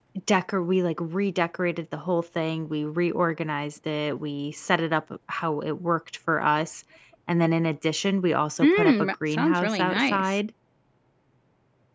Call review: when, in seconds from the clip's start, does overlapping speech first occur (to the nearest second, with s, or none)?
9 s